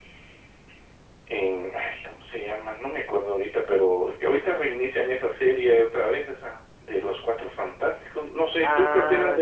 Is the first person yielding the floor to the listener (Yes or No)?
Yes